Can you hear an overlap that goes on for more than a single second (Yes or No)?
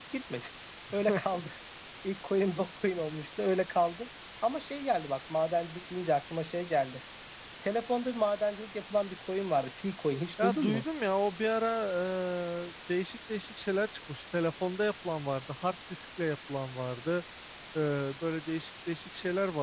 No